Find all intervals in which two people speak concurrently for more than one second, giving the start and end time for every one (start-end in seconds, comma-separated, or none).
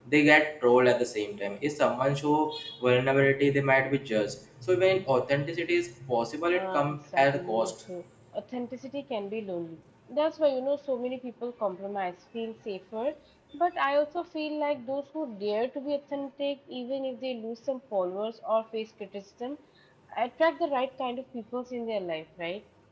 6.5-7.7